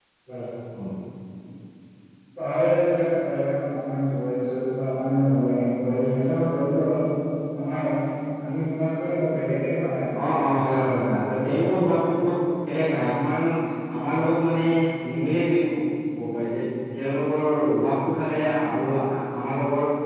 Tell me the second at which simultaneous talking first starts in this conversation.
none

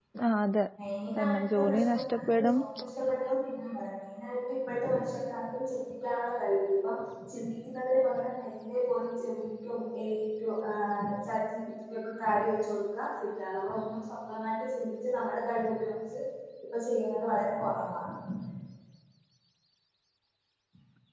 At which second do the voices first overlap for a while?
1.2 s

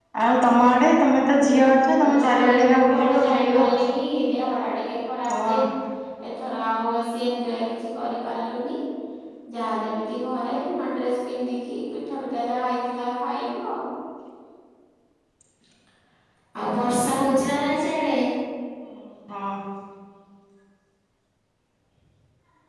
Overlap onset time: 2.2 s

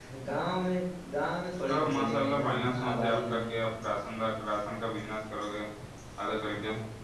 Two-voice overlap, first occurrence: 1.9 s

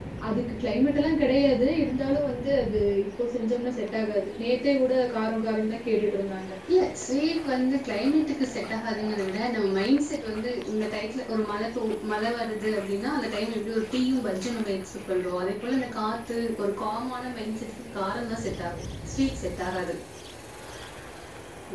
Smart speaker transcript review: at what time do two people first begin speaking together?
none

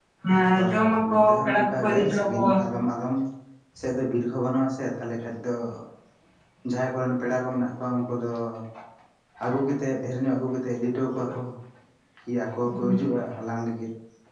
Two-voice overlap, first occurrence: 0.6 s

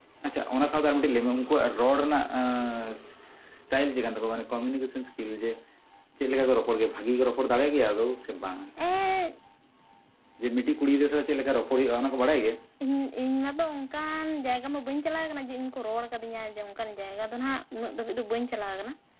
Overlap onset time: none

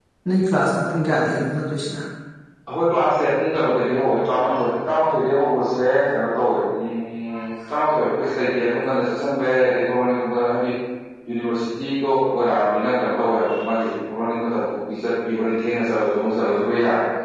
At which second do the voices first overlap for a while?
none

